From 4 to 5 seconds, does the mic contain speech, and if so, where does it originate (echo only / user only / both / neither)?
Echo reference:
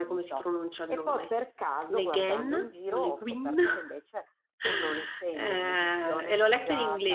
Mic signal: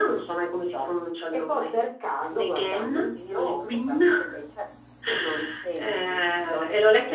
echo only